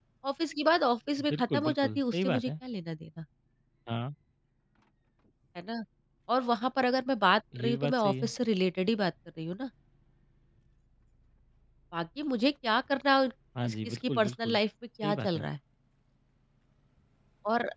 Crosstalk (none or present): present